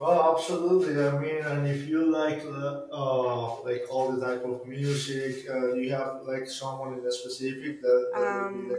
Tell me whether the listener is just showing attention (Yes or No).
No